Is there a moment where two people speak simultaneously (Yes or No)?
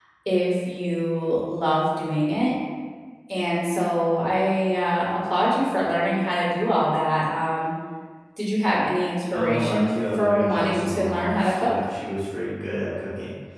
Yes